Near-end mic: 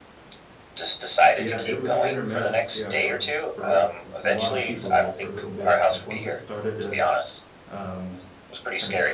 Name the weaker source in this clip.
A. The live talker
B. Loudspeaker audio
A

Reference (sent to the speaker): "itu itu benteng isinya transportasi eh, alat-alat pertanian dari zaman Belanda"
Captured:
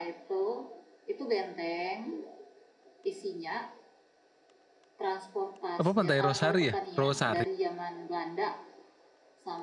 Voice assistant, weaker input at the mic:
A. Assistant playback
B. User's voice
A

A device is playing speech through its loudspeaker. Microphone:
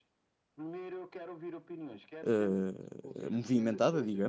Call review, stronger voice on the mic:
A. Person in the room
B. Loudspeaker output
A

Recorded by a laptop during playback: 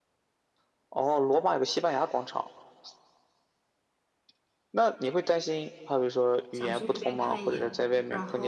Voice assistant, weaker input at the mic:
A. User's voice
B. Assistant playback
A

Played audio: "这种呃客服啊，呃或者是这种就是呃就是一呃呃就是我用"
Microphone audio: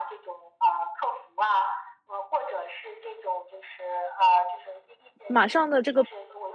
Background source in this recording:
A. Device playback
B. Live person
A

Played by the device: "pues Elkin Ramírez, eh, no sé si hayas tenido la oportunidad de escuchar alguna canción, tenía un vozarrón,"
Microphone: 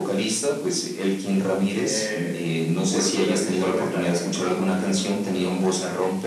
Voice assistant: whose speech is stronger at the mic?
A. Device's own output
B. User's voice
A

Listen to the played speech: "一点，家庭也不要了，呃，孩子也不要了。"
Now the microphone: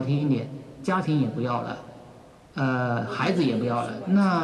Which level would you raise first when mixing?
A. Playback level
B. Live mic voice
B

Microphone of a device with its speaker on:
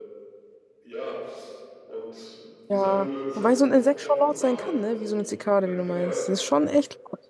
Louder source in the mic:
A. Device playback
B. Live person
B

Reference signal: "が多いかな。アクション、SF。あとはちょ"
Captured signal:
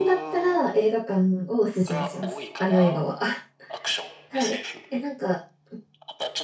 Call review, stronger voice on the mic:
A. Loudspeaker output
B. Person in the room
B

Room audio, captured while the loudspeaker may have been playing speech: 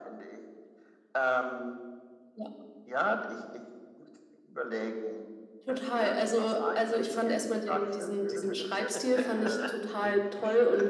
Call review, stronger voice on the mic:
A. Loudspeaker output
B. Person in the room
A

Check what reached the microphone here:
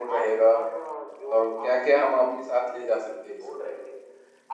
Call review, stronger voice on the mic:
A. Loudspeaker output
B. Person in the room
B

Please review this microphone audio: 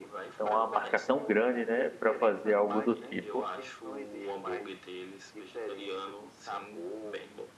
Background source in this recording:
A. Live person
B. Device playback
B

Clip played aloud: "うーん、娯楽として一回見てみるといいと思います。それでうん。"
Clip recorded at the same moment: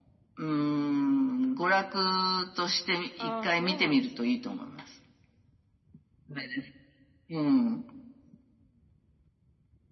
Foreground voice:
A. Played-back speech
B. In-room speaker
A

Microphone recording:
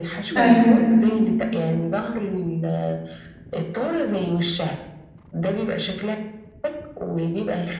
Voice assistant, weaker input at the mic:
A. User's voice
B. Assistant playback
B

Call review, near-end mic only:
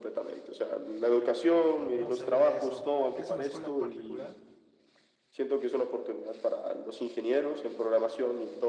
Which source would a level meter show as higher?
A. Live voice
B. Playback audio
B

